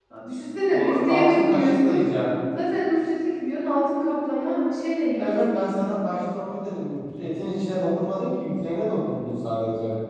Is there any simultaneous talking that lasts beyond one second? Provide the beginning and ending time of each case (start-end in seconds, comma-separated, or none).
0.7-2.0